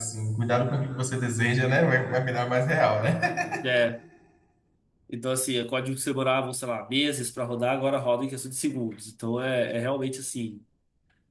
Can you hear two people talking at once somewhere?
No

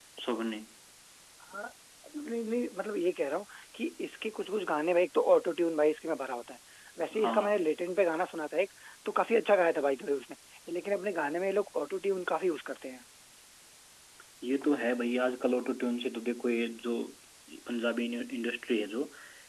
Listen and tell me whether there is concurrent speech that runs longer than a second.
No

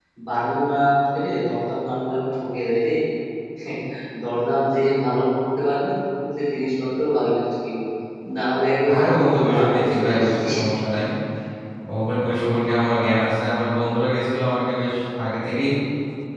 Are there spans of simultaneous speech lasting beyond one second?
Yes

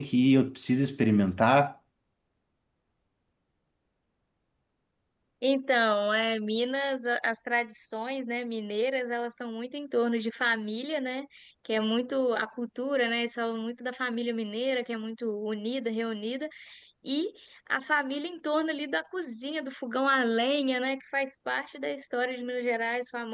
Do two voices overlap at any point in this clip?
No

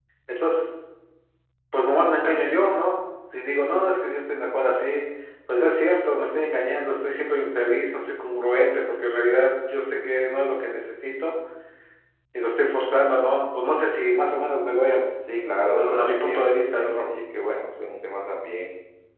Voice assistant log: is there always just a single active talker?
No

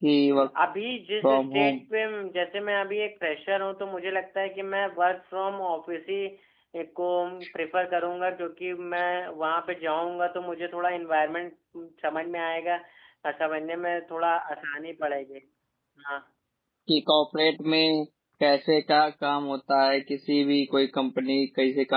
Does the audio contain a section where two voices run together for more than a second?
No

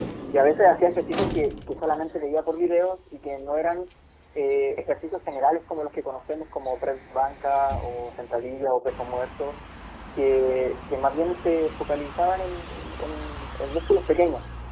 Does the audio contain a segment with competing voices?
No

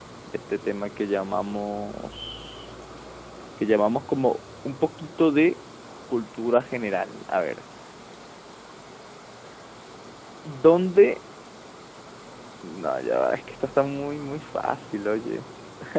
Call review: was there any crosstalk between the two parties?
No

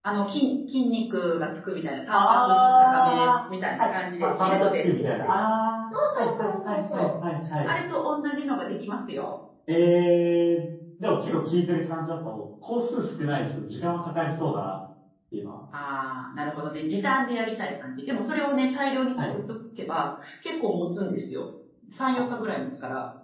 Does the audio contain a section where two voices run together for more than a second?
Yes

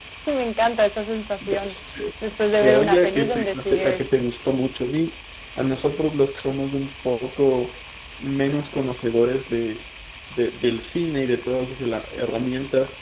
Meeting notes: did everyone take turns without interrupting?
No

